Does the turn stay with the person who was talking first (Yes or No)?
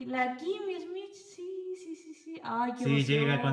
No